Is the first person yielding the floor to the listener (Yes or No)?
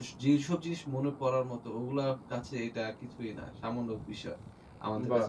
No